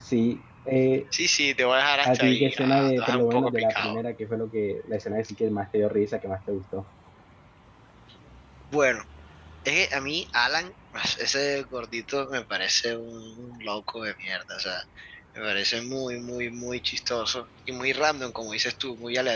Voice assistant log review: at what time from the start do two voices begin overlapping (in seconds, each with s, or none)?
2.0 s